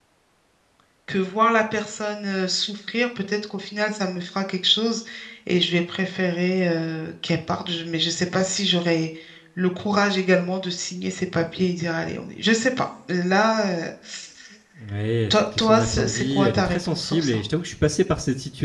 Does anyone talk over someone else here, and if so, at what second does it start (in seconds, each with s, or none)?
15.3 s